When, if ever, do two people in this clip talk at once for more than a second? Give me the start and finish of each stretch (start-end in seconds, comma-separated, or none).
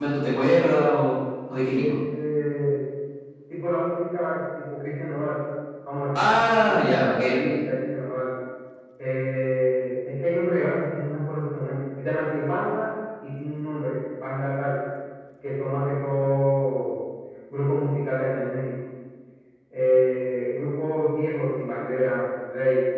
6.1-7.5